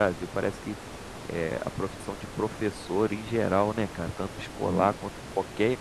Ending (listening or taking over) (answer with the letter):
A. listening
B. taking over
A